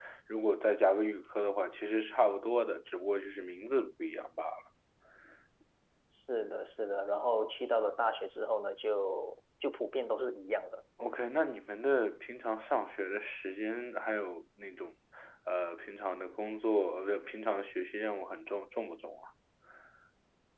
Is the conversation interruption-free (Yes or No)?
Yes